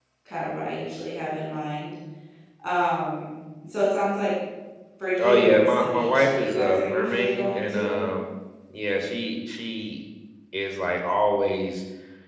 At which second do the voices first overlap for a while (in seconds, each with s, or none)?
5.2 s